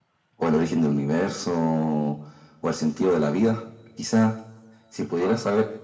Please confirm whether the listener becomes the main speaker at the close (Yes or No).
No